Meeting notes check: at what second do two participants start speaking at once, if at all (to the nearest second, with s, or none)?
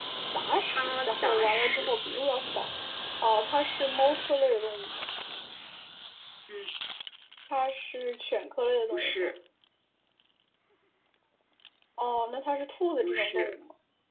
1 s